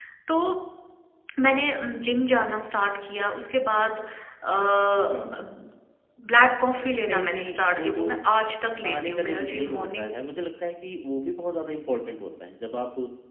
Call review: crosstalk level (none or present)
present